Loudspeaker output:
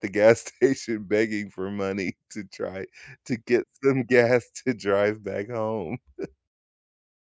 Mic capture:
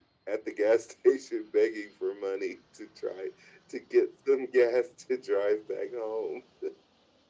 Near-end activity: none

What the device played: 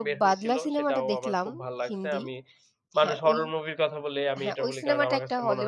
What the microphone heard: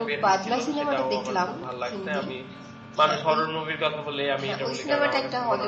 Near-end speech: none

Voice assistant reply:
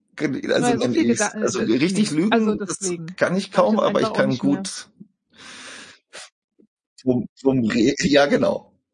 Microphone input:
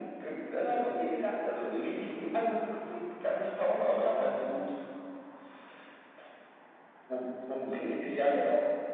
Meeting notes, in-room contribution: none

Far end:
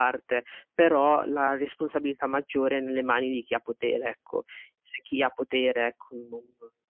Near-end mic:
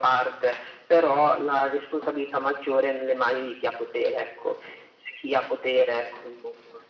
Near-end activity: none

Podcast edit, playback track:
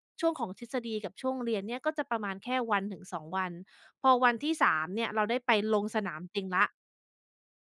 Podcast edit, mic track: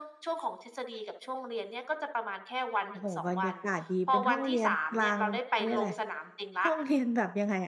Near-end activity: present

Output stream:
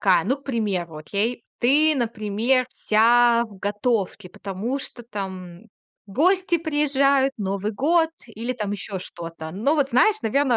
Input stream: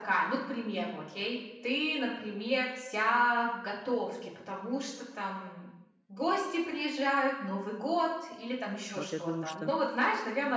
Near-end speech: present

